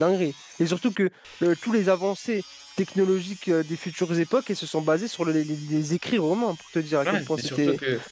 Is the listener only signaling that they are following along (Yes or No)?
No